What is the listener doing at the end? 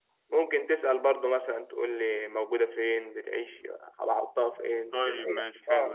taking over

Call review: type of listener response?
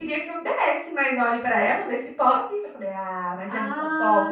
taking over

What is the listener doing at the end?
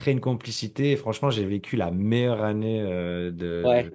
listening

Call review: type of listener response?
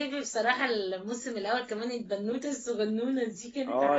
taking over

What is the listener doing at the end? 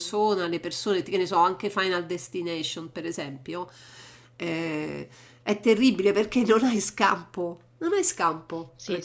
taking over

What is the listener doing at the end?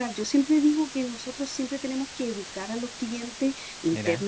listening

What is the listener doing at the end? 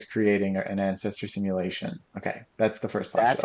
taking over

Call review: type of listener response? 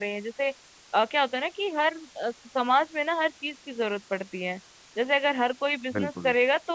listening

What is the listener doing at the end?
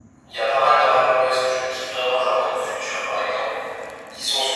listening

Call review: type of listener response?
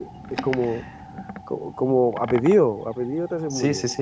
taking over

